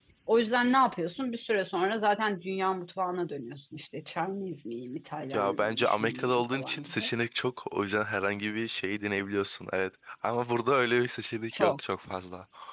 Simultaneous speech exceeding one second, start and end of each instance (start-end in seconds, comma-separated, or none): 5.3-7.0